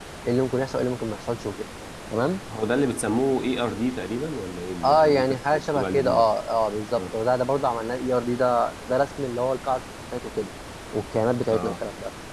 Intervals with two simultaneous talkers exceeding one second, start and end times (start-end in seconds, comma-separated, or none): 4.8-6.3